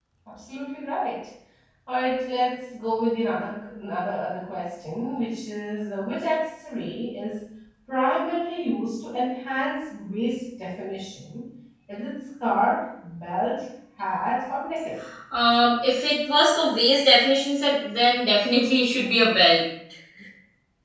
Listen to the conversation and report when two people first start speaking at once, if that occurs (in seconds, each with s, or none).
none